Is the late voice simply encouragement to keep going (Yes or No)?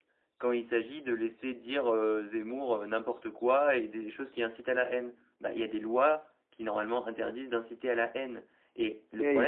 No